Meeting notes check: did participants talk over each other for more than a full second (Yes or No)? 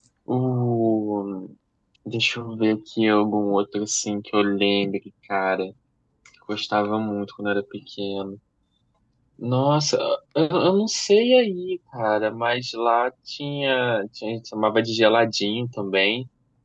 No